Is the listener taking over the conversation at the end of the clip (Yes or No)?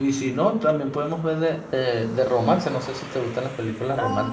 Yes